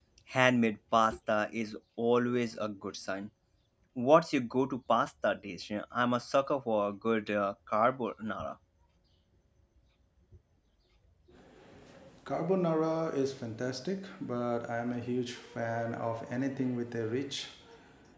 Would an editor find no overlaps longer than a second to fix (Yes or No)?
Yes